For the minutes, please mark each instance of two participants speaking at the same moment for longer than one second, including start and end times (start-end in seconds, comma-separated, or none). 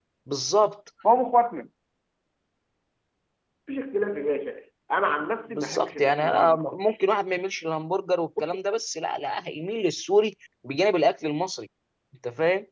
5.6-6.8